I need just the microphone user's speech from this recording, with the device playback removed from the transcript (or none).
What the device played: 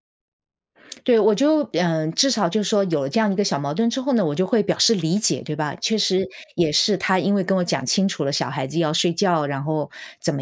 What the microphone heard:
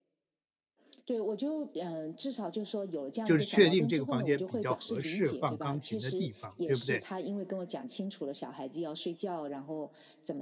就是确定这个房间比较合适放钢琴的地方，对不对？